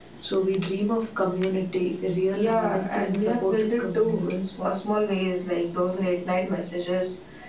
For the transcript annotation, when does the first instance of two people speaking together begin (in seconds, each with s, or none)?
2.3 s